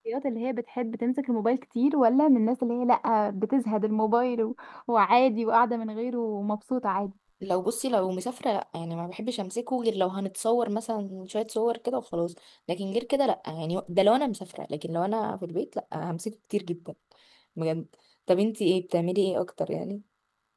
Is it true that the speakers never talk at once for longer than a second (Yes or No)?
Yes